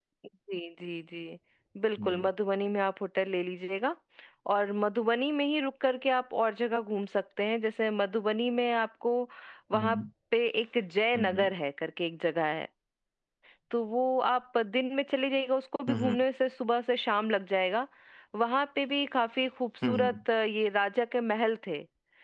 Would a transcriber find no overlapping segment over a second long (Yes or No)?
Yes